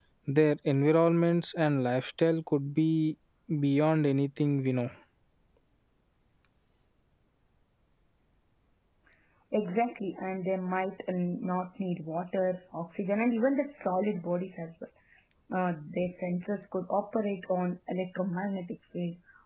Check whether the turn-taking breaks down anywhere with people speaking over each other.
No

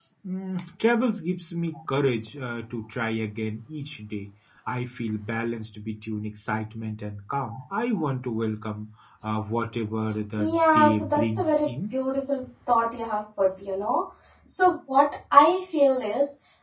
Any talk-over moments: Yes, from 10.4 s

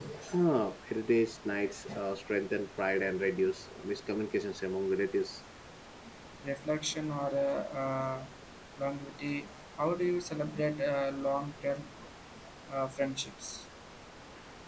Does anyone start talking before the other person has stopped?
No

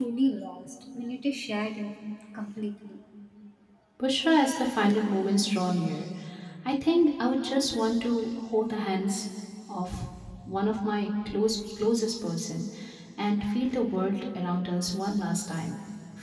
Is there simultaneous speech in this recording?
No

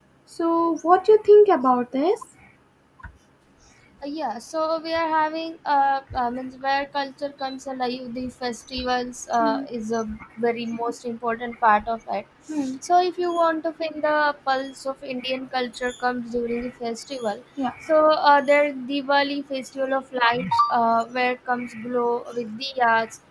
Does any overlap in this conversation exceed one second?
No

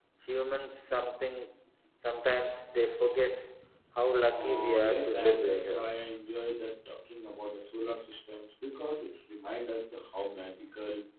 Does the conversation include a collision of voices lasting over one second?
Yes, from 4.3 s

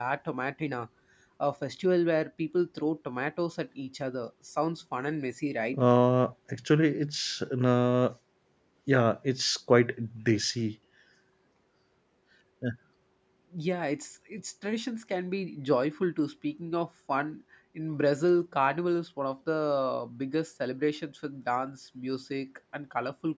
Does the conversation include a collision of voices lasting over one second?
No

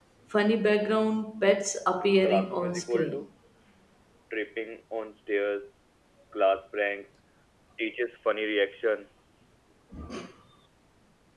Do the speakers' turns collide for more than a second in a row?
Yes, from 2.0 s

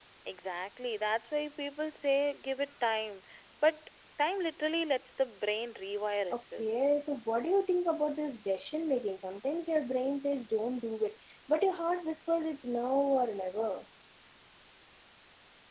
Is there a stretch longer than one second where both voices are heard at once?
No

